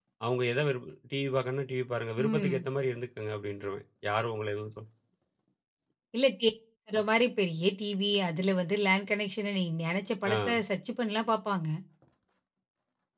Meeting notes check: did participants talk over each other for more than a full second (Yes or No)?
No